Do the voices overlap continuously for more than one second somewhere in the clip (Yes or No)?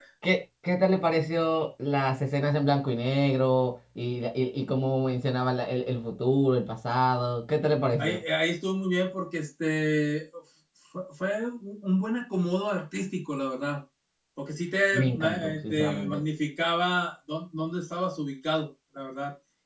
Yes